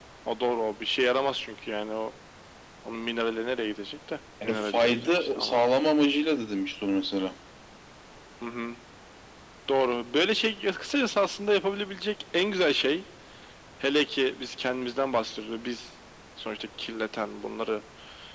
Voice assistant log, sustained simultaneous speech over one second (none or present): present